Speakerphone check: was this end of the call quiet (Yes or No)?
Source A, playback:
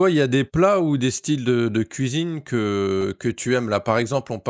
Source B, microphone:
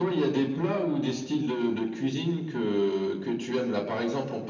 Yes